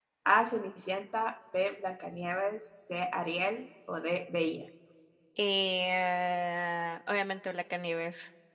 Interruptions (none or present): none